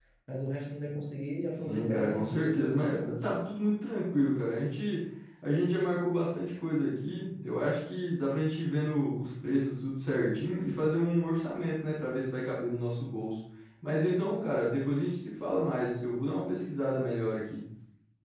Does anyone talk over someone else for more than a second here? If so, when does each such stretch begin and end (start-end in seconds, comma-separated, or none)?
1.5-3.3